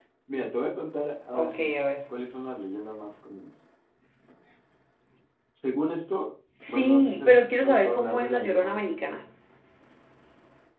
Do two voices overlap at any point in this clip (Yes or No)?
Yes